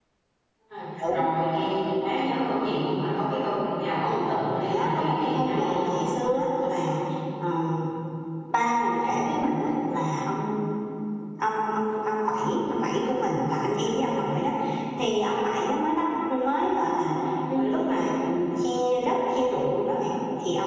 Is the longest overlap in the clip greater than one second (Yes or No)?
Yes